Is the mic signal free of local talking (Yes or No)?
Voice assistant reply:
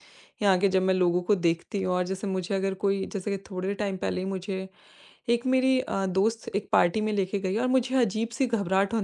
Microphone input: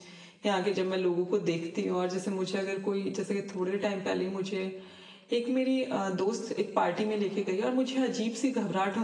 Yes